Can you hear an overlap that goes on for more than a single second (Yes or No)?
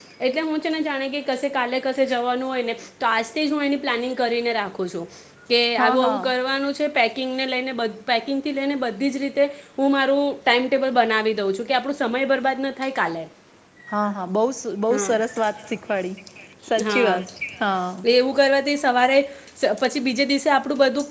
No